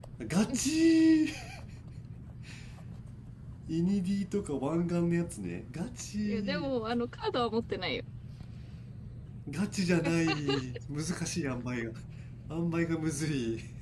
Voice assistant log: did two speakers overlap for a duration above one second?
No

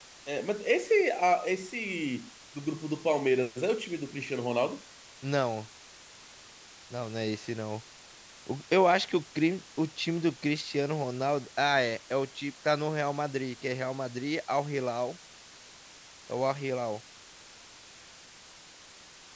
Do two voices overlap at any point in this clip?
No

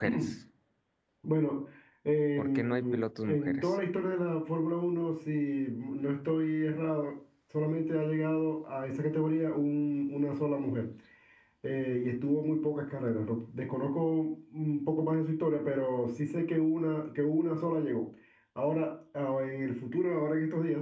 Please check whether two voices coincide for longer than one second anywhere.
Yes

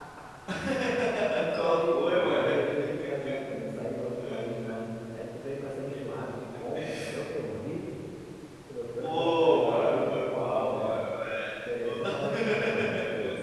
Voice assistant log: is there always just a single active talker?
No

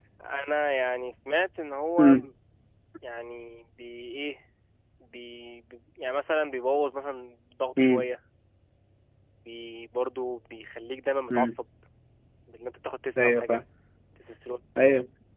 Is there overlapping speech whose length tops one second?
No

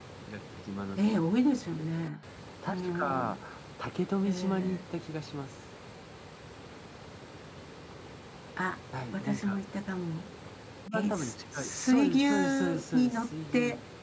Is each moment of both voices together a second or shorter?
No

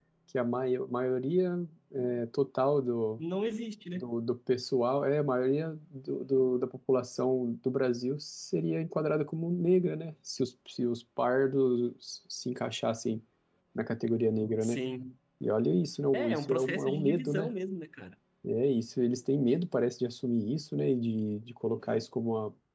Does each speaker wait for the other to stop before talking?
No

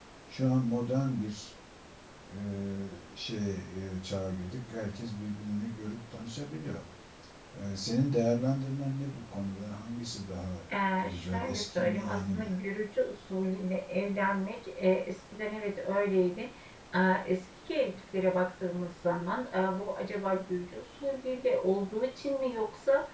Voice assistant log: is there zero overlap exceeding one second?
No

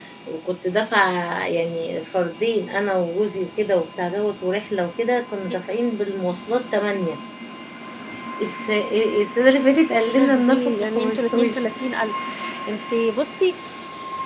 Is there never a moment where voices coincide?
No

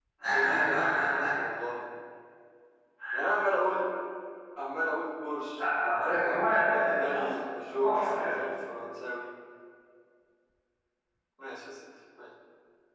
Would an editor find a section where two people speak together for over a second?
Yes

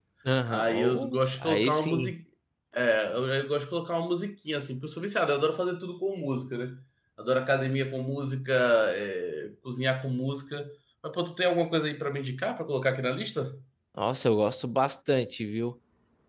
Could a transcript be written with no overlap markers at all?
No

